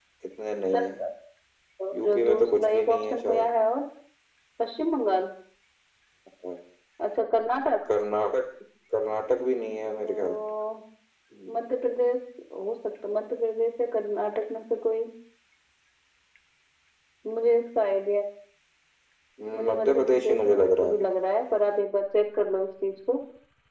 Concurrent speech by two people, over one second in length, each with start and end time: 2.0-3.5, 19.7-20.9

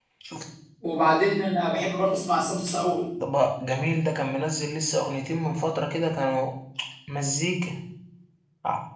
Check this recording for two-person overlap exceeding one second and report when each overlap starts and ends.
none

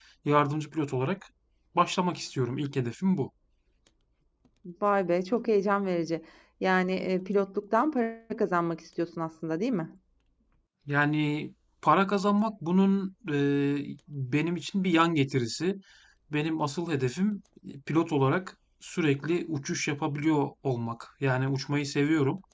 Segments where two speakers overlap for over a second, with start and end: none

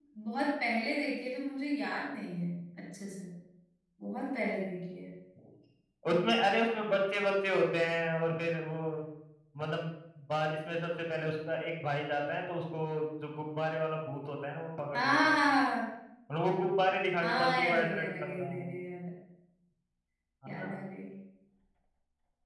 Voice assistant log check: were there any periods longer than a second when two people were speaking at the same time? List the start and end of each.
17.2-18.7

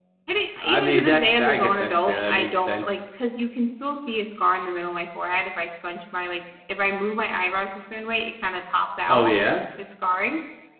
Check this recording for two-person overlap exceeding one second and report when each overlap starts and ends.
0.6-3.0

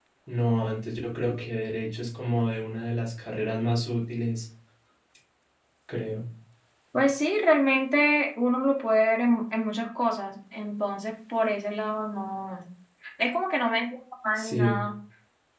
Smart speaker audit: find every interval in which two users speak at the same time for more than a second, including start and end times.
none

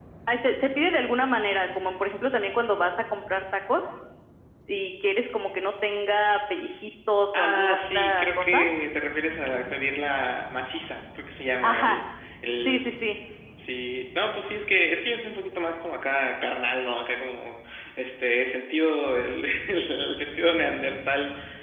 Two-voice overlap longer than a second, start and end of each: 7.3-8.6

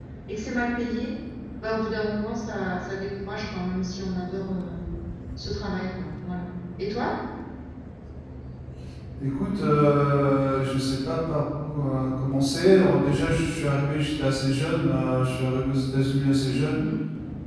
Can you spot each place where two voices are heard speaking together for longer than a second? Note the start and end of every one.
none

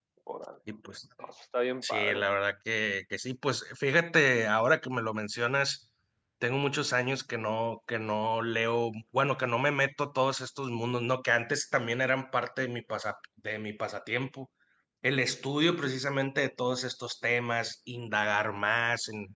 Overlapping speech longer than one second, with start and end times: none

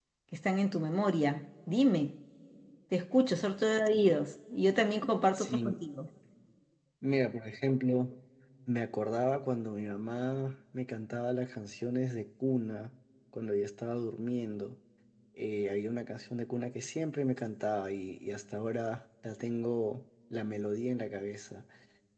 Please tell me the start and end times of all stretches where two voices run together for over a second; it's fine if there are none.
none

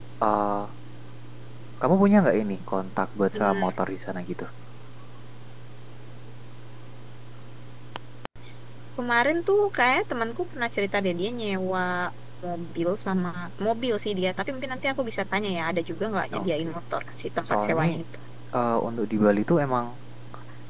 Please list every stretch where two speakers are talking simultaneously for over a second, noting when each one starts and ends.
none

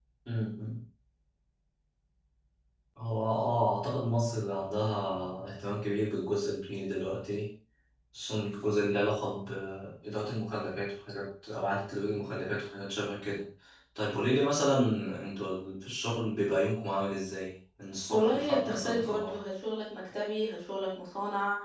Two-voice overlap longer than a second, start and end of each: 18.1-19.4

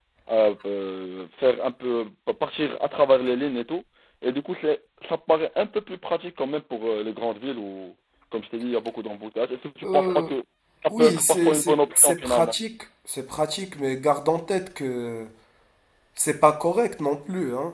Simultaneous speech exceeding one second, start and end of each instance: 10.9-12.6

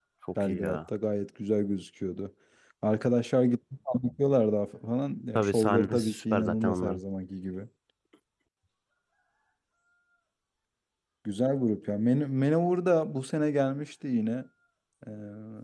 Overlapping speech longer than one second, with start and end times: 5.4-7.0

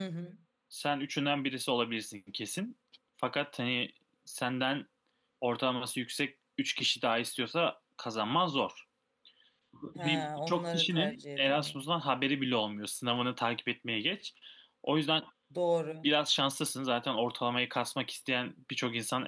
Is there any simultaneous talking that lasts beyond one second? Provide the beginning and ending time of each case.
10.0-11.9

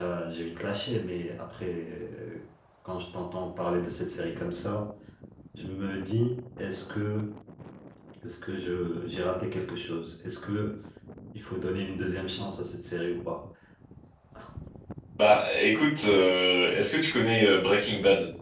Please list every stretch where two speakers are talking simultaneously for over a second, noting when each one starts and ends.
none

